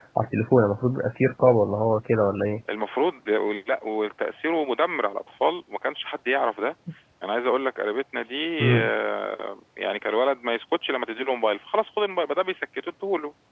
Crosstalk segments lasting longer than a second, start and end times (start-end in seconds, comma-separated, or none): none